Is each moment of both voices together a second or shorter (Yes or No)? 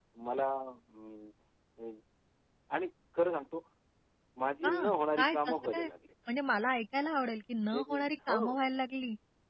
No